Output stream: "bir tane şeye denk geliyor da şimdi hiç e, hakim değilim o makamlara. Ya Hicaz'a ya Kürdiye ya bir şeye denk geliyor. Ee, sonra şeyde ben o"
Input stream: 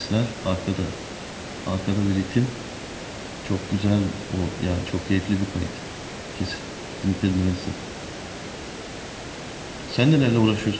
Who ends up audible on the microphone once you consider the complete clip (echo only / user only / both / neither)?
user only